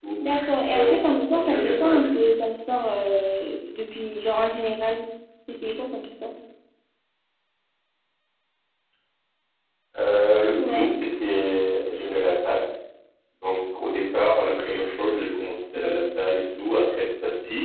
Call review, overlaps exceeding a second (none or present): present